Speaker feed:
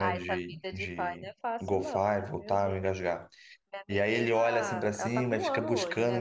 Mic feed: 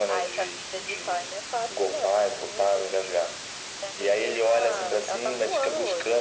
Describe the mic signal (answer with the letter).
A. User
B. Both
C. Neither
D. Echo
D